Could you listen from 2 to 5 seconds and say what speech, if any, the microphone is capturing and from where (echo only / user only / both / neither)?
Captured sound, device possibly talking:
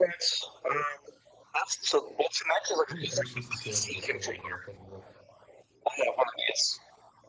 both